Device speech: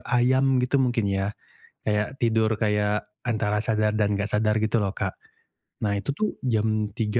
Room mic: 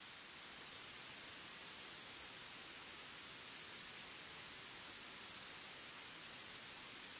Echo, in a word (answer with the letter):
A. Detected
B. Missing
B